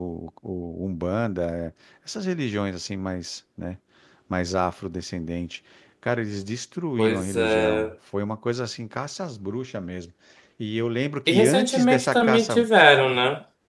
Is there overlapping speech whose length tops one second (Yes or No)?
Yes